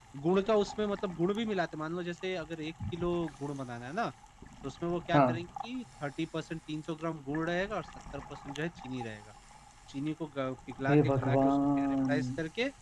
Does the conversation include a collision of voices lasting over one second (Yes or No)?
Yes